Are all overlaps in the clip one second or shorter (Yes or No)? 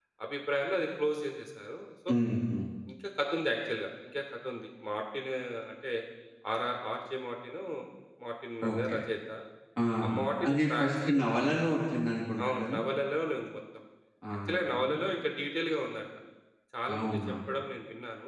No